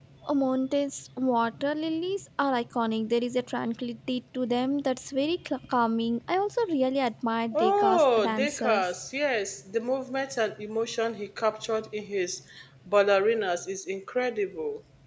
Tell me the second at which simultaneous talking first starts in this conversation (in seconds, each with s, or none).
7.5 s